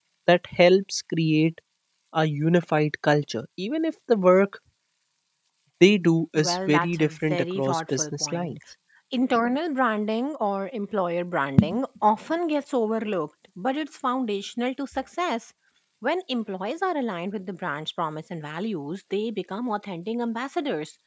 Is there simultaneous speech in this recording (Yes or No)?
Yes